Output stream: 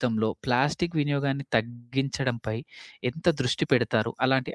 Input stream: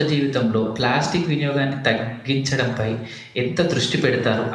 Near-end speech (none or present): none